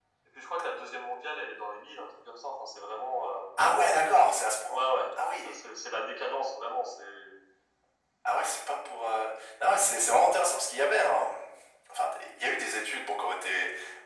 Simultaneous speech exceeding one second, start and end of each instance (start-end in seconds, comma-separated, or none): none